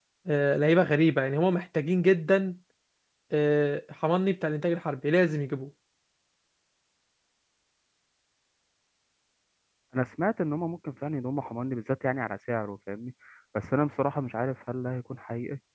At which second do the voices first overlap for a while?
none

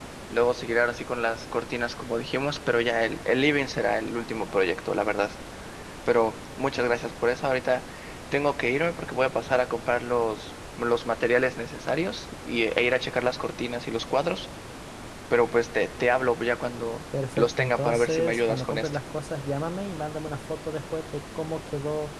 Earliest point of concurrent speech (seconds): 17.4 s

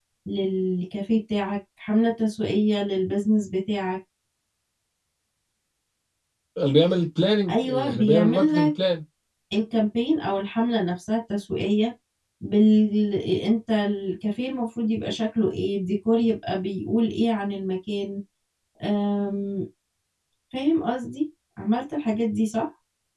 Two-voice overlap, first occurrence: 7.5 s

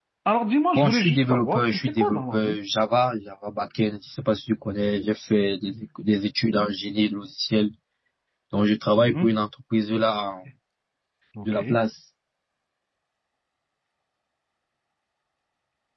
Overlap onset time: 0.8 s

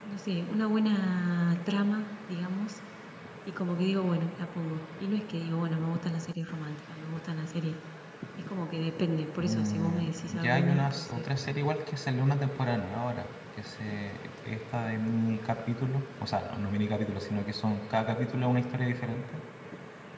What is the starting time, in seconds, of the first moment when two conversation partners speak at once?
9.4 s

